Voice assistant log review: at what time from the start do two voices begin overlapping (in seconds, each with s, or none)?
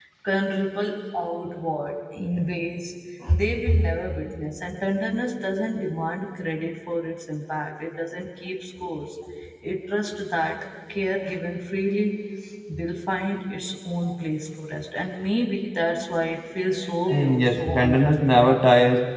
17.1 s